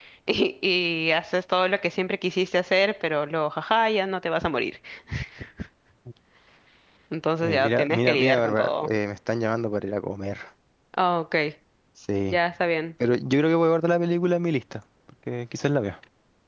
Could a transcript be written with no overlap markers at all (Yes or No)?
No